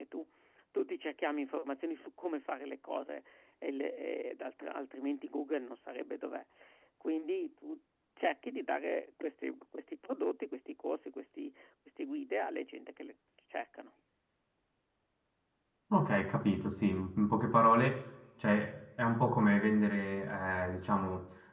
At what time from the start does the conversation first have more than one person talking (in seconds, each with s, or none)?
none